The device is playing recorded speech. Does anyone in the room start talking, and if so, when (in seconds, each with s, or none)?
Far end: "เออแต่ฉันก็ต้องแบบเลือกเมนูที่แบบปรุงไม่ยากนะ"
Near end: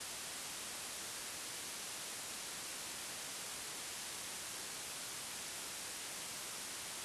none